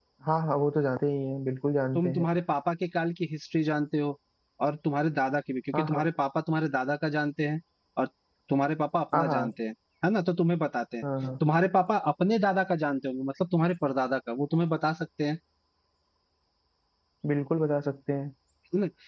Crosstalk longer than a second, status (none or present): none